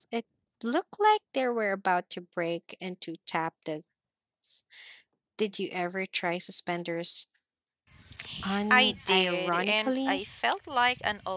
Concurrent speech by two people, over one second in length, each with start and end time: 8.7-10.2

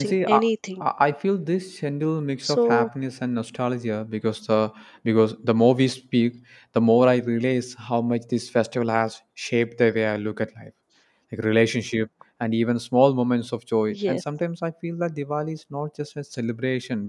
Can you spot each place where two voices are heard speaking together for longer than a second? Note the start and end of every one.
none

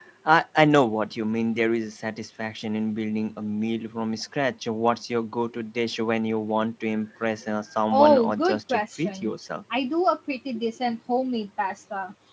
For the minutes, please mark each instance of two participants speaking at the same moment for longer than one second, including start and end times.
7.9-9.3

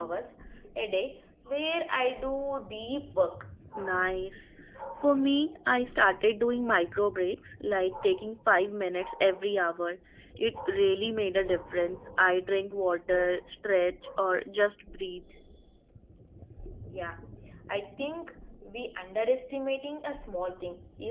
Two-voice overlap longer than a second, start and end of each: none

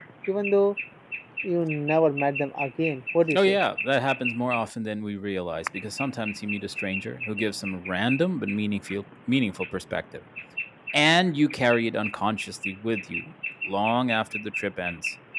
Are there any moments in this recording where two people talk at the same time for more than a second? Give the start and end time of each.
none

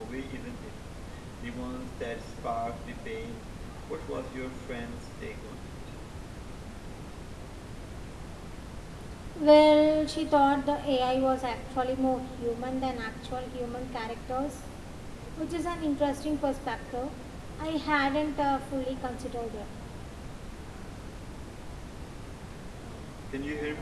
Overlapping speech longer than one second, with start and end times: none

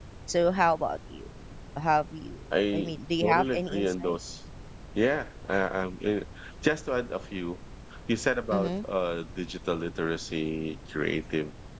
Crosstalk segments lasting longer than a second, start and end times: 2.7-4.2

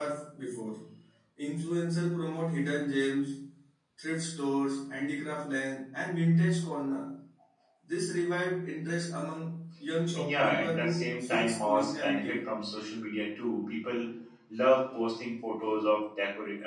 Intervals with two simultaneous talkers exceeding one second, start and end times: 10.2-12.4

